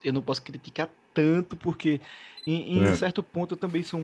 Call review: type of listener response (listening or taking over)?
listening